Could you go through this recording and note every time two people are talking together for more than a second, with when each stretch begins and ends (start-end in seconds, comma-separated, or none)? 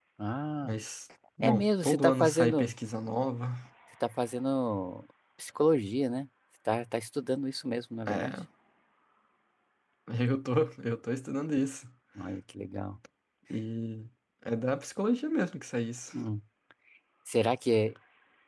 1.4-2.8